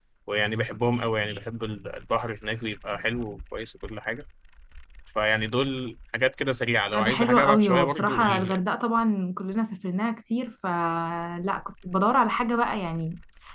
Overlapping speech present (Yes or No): Yes